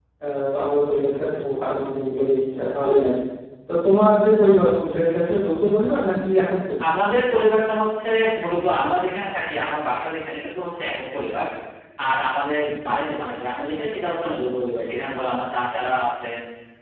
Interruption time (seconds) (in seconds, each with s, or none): none